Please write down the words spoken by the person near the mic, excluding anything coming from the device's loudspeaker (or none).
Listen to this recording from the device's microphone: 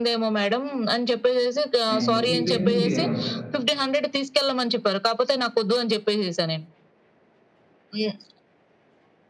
అండ్ ఈ ట్రెండ్‌ని మీరేమంటారు?